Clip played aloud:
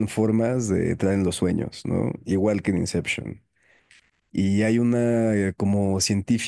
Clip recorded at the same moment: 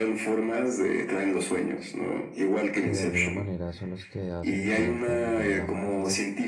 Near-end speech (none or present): present